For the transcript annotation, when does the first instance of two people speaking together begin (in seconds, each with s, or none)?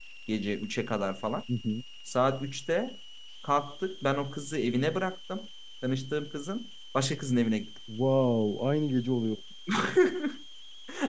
none